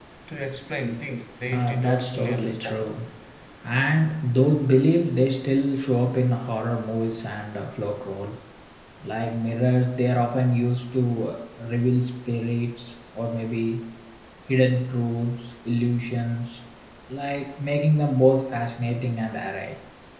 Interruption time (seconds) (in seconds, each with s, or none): 1.5 s